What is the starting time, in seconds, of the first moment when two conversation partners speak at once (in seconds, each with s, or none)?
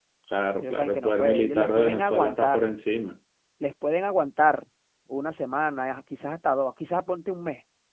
0.6 s